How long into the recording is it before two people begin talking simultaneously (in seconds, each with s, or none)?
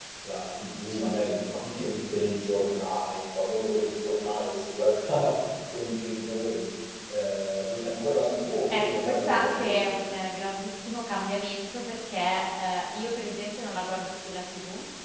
8.7 s